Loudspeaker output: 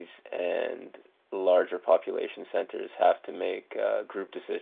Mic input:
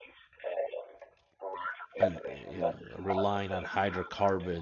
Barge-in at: 2.0 s

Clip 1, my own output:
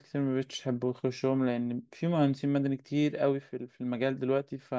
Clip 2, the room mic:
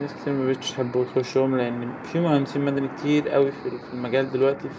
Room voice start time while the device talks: none

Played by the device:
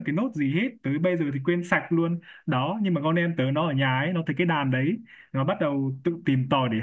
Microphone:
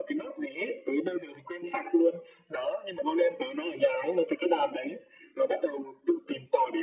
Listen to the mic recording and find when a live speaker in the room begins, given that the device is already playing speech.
none

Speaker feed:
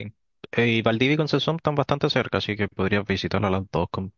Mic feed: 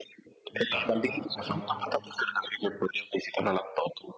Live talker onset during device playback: 0.5 s

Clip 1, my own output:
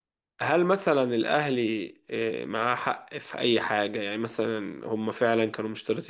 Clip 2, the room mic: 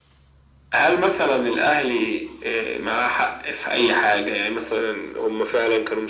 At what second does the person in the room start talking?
none

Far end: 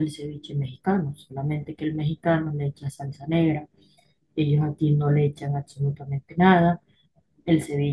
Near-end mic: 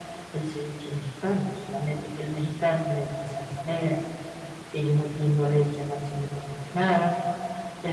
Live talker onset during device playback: none

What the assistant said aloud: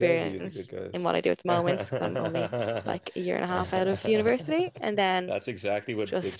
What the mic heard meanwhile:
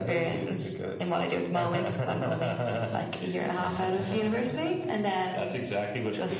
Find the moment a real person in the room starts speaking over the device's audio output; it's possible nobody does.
none

